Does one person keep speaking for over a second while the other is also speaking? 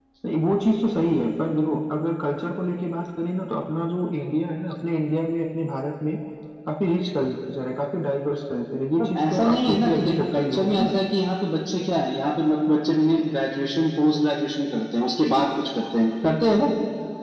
Yes, from 9.0 s

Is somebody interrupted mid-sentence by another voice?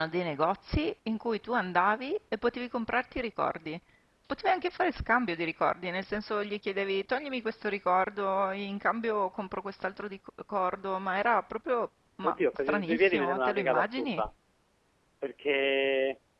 Yes, from 12.2 s

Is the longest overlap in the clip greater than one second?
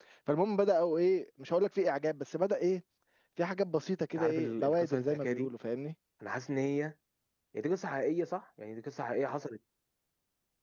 Yes, from 4.2 s

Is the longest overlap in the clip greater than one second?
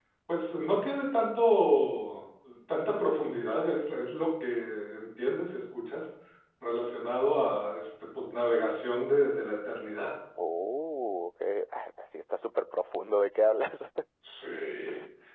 No

